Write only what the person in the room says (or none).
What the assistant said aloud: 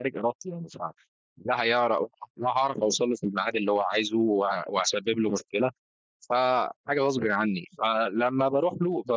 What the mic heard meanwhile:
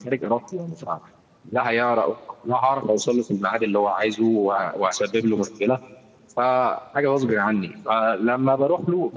none